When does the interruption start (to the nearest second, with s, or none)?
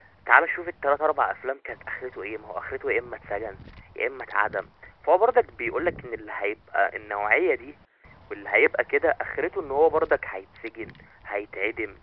none